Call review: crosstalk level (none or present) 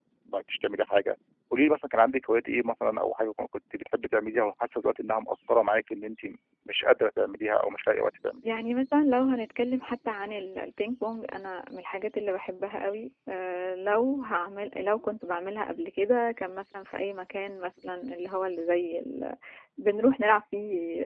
none